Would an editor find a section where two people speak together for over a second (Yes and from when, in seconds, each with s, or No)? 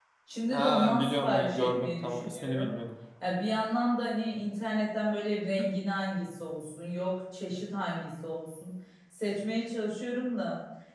Yes, from 0.5 s